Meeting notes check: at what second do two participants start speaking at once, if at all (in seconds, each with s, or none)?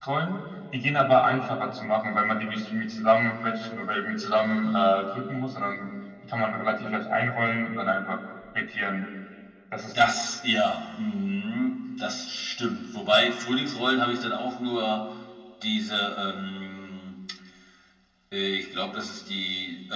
none